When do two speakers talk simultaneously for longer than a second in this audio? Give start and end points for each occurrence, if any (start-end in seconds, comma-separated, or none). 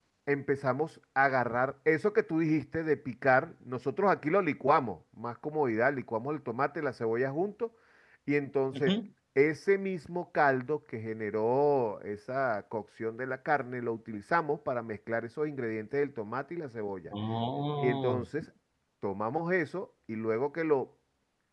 none